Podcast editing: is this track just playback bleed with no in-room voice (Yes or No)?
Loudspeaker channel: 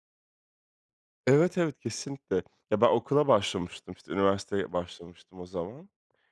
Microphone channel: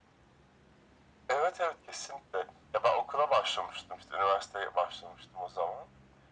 Yes